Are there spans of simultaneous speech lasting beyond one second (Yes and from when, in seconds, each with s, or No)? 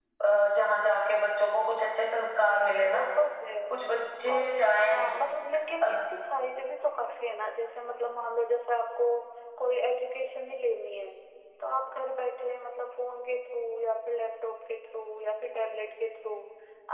No